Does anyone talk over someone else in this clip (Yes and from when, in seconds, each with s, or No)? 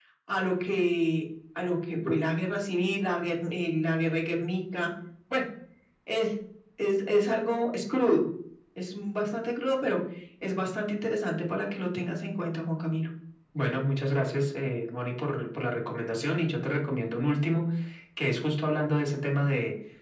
No